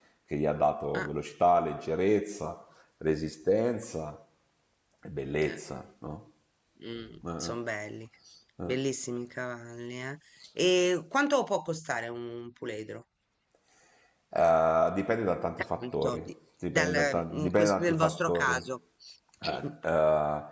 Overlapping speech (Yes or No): Yes